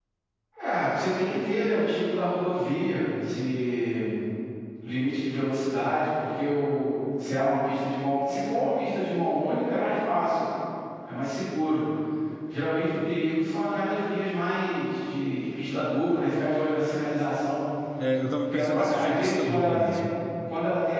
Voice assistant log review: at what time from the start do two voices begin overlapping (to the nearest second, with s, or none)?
18 s